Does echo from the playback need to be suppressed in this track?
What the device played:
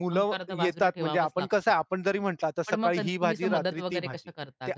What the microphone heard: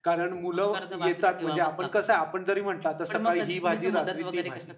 Yes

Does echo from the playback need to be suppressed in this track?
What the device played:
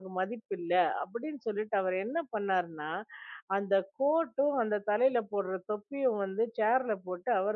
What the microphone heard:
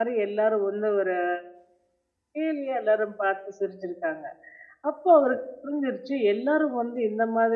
No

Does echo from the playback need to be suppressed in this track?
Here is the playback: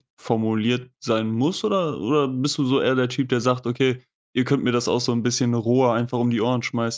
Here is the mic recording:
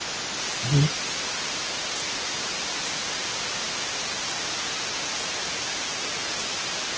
No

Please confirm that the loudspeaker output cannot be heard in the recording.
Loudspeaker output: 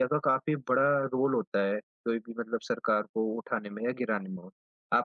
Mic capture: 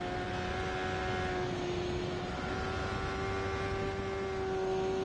Yes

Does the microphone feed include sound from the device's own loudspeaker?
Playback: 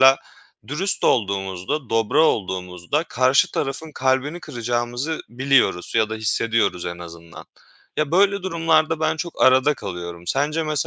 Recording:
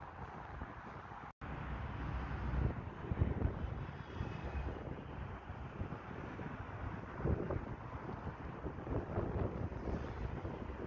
No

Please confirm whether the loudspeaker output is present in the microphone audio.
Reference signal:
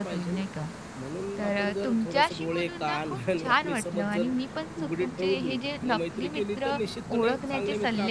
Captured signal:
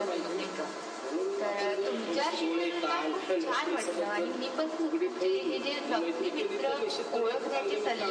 Yes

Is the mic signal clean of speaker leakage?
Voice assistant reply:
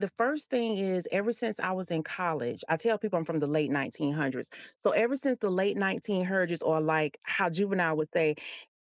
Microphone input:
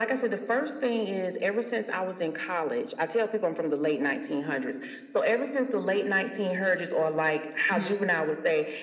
No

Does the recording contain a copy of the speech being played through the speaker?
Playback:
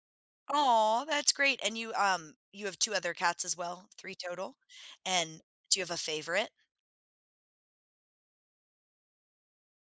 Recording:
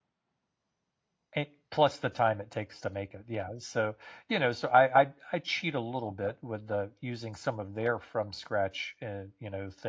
No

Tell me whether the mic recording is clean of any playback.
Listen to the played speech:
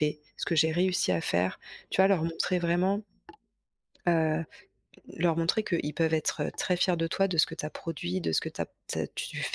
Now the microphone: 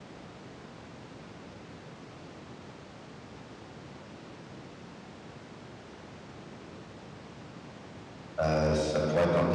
Yes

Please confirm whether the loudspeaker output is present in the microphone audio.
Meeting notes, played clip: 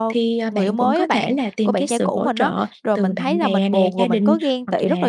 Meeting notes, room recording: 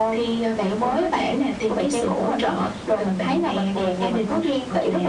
Yes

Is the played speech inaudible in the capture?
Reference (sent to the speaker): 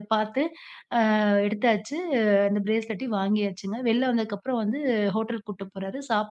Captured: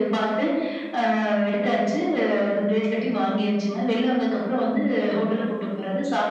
No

